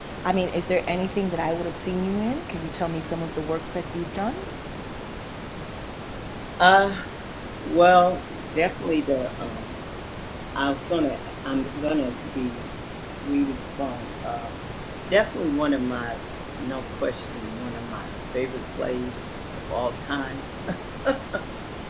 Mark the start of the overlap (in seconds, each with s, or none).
none